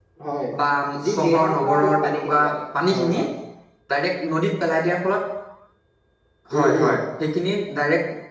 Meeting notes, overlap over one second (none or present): present